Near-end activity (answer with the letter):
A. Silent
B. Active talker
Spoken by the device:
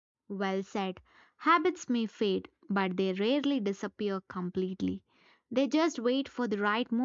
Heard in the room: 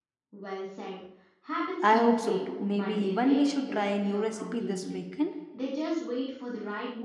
B